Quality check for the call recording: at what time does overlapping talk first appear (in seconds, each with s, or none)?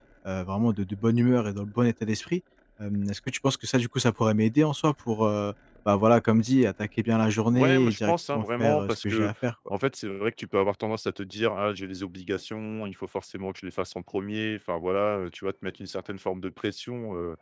7.5 s